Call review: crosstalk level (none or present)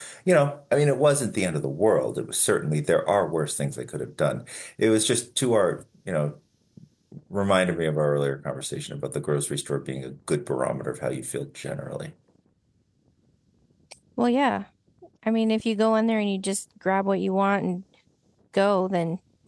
none